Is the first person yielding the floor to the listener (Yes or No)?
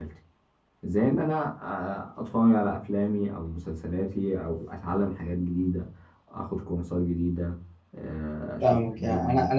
Yes